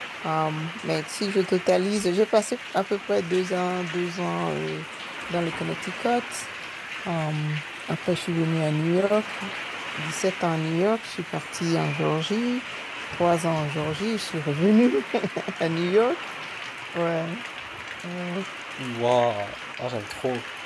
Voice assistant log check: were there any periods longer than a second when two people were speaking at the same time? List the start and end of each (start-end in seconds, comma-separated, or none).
none